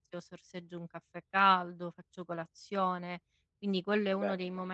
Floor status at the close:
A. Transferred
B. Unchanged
B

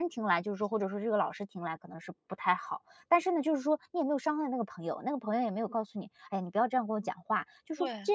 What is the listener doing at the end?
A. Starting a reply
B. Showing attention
B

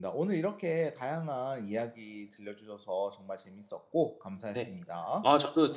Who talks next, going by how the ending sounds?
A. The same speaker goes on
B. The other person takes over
B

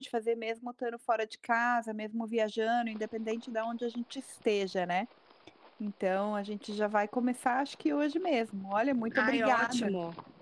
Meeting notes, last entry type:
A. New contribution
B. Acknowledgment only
A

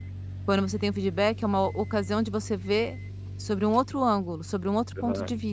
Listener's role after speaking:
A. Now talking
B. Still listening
A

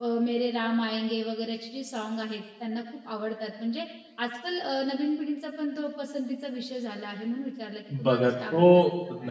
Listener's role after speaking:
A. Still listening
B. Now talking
B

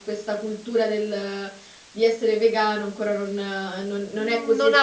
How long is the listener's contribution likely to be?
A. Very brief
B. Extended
B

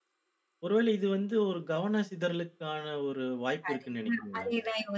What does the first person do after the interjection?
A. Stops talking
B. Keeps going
A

